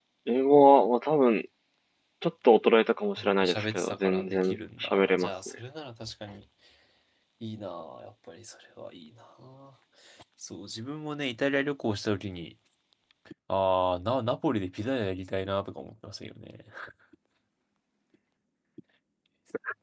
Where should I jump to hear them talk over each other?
3 s

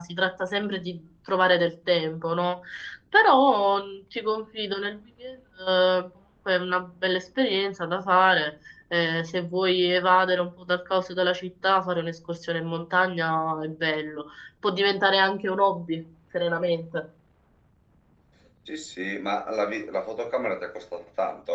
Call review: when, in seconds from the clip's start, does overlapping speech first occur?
none

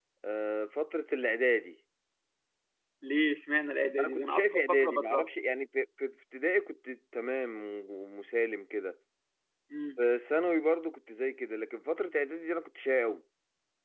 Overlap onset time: 4 s

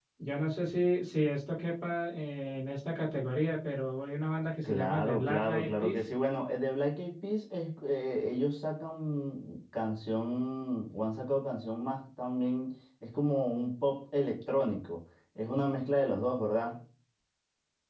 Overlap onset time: 5 s

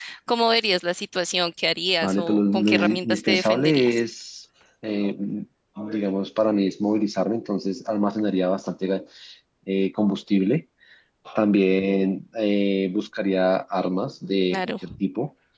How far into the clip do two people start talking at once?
2 s

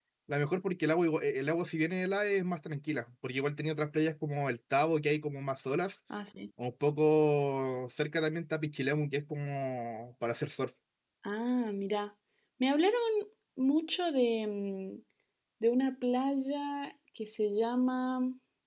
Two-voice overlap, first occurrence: none

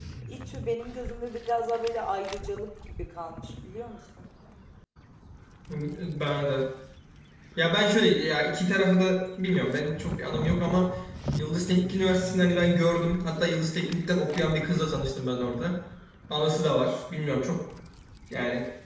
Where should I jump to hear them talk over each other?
none

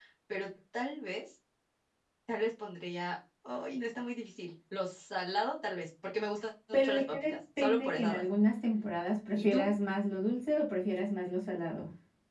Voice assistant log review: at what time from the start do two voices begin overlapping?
7 s

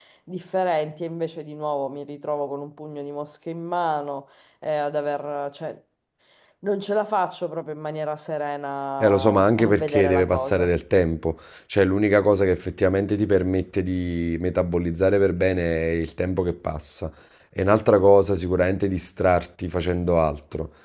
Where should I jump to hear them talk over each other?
9 s

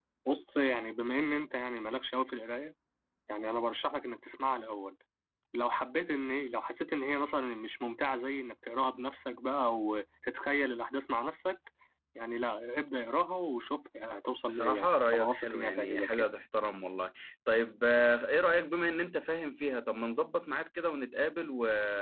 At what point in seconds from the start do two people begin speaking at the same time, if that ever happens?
14 s

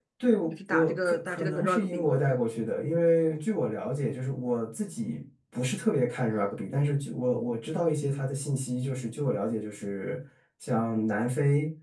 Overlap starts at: 1 s

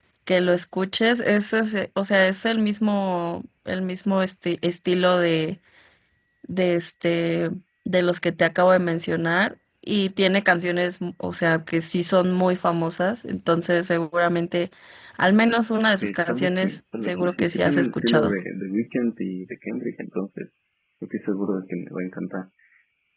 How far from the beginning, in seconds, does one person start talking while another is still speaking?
16 s

